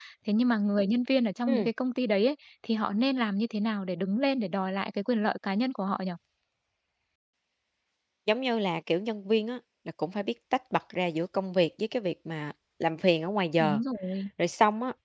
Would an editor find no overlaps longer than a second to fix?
Yes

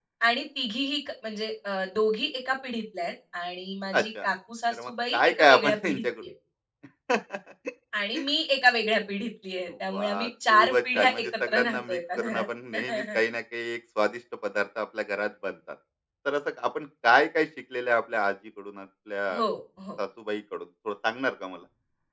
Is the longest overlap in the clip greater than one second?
Yes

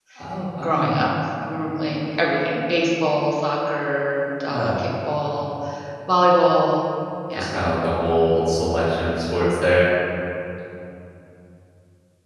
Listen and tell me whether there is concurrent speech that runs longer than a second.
No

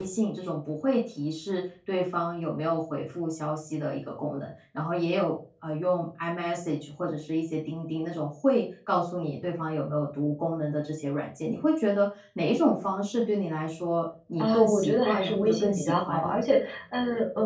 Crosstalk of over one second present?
Yes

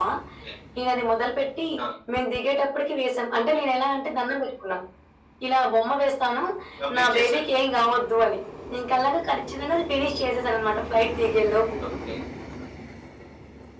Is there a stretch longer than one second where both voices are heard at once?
No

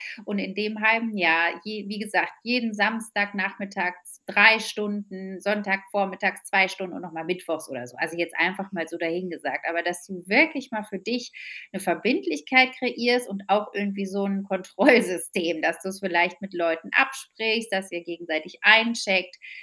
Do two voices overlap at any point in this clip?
No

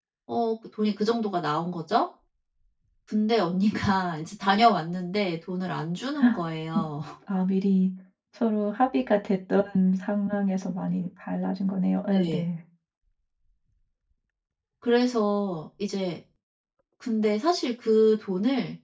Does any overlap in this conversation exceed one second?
No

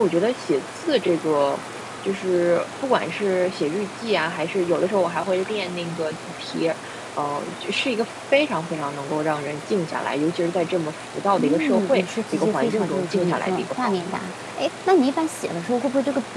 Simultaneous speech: Yes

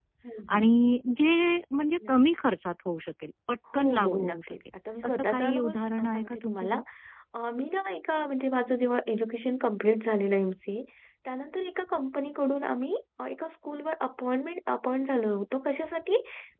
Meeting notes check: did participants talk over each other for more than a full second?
Yes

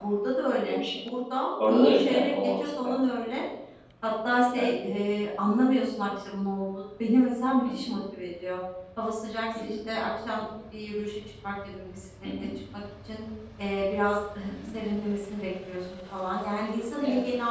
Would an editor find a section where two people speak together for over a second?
Yes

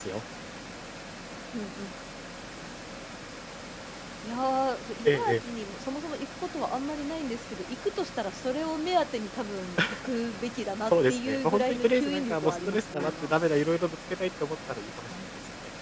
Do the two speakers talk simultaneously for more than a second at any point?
Yes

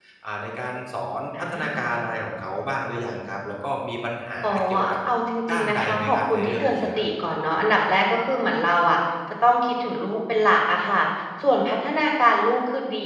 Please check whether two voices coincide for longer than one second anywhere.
Yes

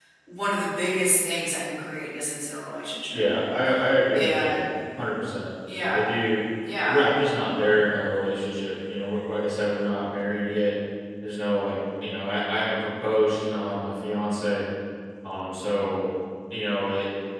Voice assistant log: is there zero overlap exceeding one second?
Yes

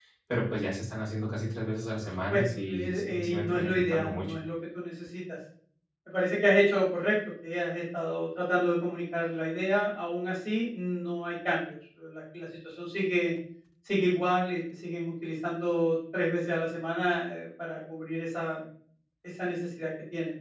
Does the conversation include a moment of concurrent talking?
Yes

